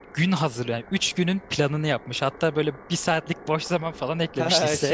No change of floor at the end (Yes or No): No